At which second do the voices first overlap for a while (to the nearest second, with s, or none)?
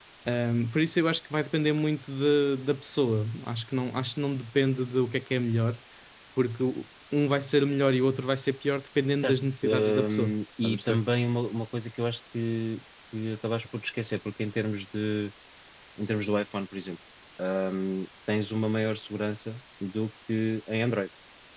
9 s